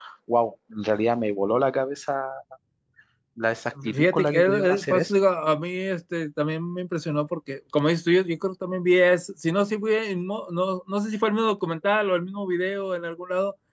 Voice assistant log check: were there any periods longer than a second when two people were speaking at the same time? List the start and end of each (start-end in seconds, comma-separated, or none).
3.9-5.1